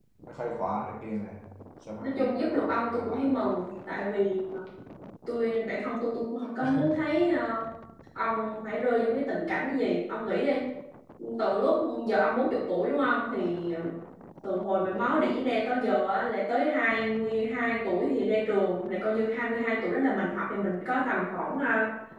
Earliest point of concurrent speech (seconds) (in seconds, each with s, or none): 2.0 s